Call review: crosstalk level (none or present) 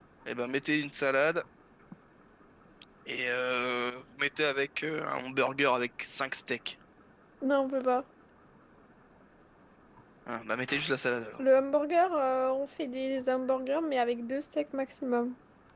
none